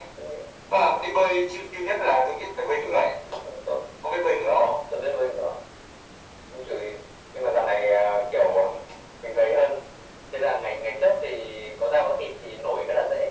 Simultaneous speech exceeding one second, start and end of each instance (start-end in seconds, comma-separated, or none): none